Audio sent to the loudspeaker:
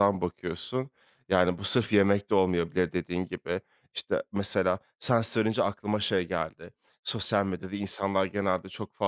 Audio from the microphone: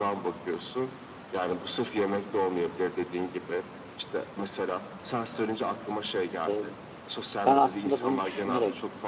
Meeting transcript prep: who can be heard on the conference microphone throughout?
both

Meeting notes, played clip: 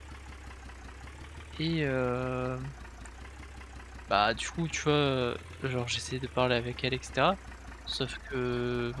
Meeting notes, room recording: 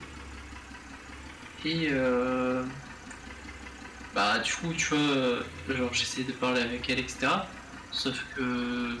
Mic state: echo only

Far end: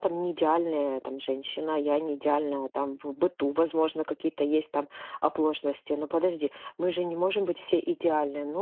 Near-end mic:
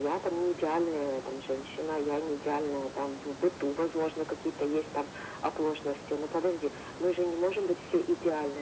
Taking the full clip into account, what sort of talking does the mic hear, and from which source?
echo only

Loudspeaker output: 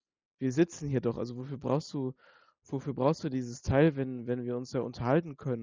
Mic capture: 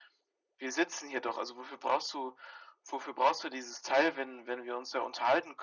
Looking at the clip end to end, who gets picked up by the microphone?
echo only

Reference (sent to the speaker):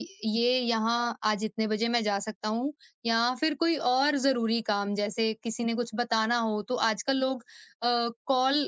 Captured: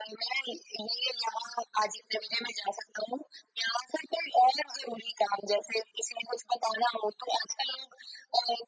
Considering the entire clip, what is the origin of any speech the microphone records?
echo only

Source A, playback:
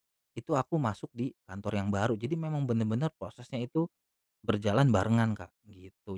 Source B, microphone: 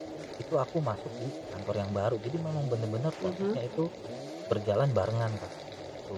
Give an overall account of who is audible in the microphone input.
both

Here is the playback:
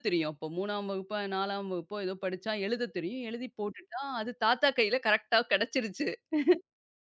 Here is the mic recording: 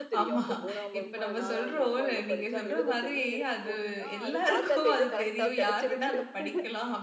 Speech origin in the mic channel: both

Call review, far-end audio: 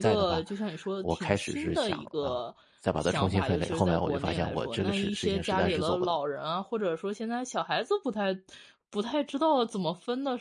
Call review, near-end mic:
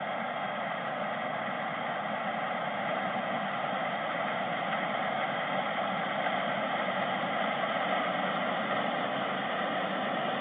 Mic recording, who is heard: neither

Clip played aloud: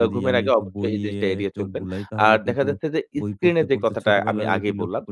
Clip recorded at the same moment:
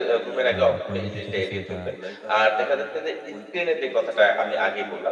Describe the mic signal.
both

